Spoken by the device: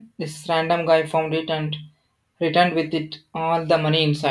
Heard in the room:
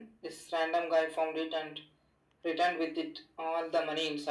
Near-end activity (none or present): none